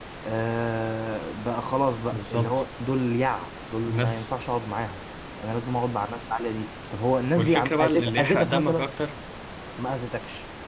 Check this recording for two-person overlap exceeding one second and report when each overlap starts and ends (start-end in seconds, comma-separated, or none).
7.4-8.9